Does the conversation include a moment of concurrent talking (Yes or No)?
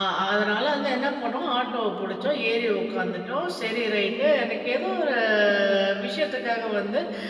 No